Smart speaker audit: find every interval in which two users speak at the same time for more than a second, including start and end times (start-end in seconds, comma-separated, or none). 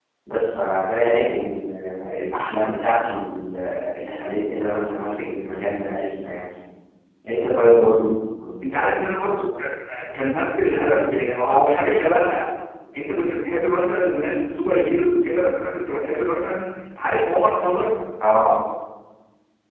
none